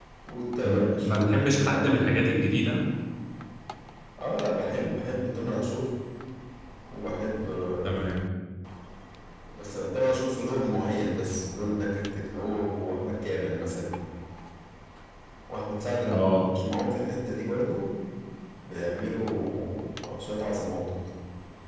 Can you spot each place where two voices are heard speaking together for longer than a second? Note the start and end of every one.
0.6-2.2

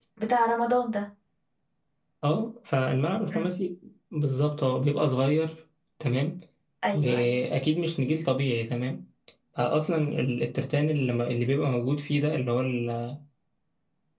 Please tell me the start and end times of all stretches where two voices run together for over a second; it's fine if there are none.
none

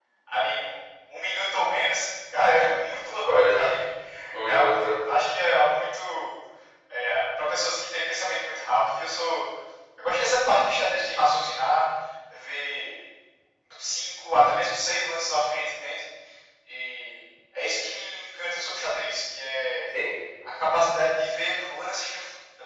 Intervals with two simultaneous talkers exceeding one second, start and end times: none

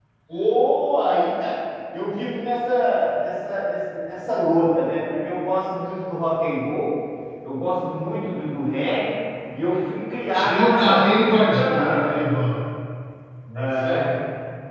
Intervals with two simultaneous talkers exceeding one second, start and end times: 10.3-12.2

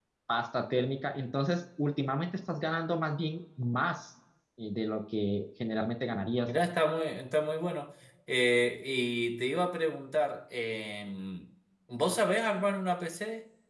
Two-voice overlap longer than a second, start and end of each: none

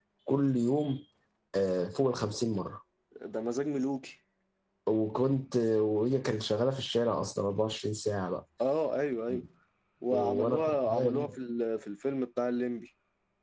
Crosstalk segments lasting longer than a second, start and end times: 10.1-11.3

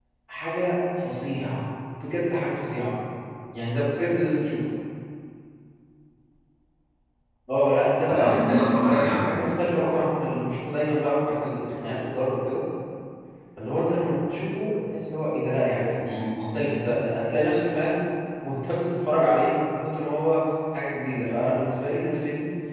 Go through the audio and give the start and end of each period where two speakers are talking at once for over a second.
8.1-9.3

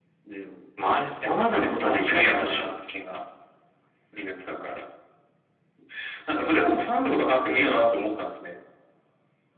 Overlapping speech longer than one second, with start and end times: 1.2-2.7

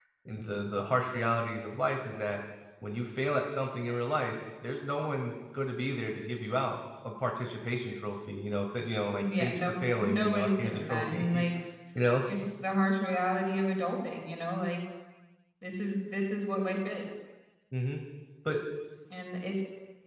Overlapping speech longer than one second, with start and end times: 9.2-11.4

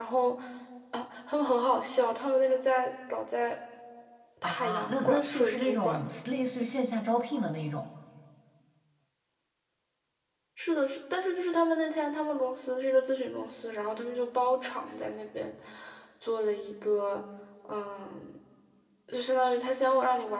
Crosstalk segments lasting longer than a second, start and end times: 4.4-6.0

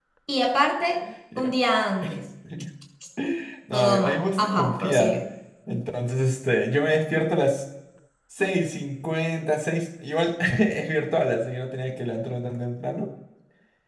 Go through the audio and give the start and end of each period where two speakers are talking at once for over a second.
3.7-5.2

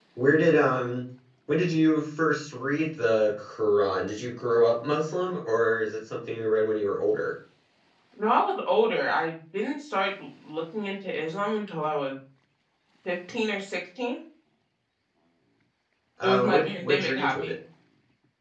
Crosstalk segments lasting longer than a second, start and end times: 16.2-17.5

